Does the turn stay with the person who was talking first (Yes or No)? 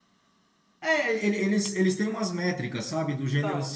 Yes